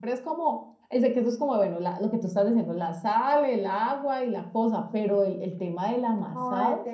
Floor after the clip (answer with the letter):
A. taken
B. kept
A